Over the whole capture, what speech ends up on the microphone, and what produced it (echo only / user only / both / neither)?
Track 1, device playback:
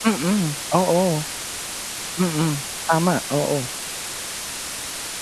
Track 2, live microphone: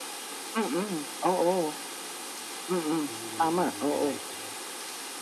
both